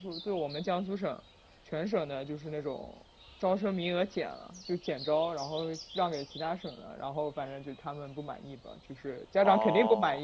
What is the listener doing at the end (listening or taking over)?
taking over